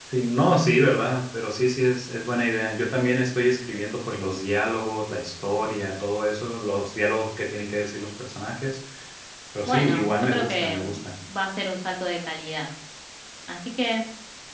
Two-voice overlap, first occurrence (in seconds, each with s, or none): 9.6 s